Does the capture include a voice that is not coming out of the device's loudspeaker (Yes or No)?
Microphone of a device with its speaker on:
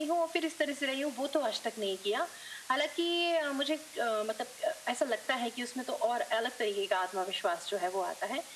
No